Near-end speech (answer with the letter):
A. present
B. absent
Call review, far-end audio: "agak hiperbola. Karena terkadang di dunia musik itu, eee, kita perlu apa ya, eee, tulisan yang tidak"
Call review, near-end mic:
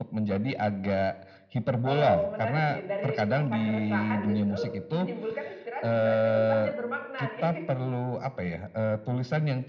A